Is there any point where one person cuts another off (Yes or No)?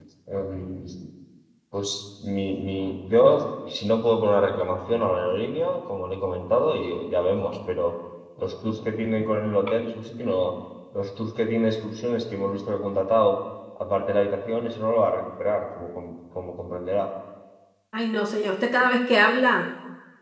No